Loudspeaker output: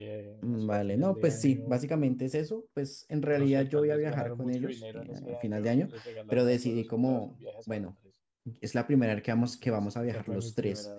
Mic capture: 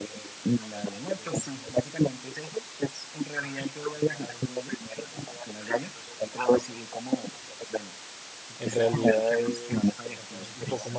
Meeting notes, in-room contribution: present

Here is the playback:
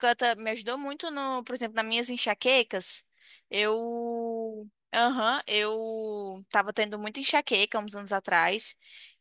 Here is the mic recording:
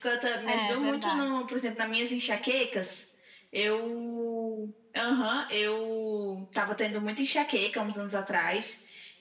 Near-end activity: present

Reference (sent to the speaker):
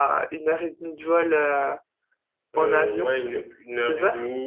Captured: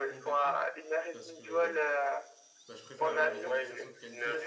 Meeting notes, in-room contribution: present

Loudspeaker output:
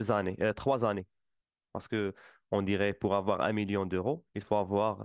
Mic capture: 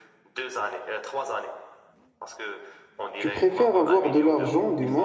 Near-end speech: present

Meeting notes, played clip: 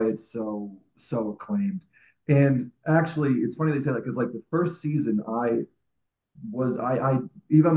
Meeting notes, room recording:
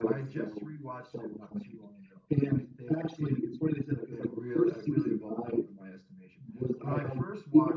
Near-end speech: present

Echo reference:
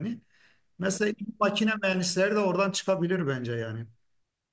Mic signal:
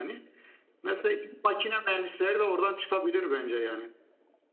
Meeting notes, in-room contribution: none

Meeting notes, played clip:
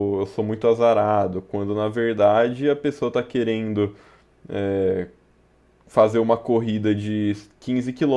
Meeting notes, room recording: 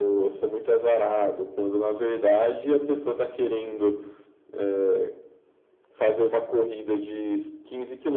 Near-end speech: none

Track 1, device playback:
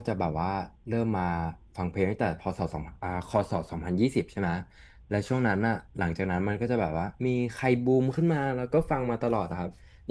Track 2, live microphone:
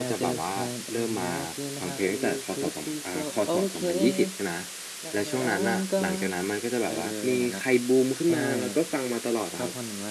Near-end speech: present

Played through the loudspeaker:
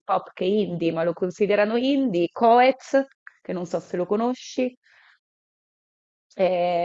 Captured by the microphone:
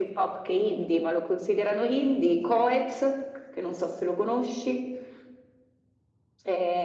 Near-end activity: none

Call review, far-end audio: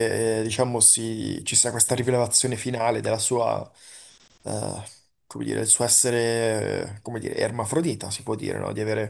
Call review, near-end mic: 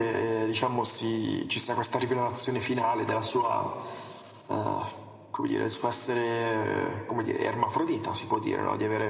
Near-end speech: none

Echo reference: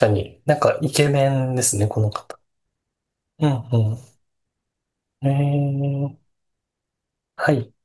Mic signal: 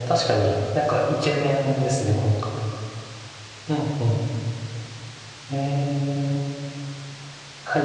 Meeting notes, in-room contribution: none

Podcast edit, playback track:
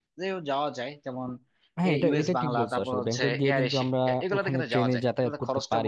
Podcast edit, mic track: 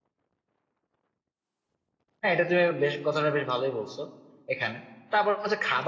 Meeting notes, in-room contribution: present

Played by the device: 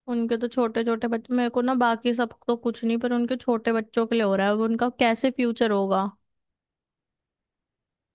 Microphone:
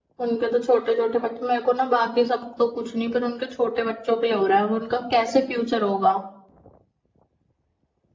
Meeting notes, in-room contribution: none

